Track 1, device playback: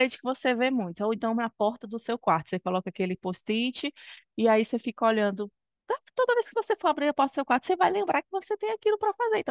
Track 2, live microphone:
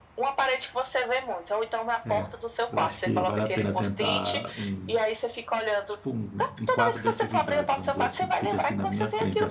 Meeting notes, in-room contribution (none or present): present